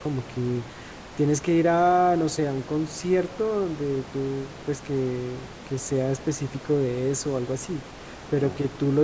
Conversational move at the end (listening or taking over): listening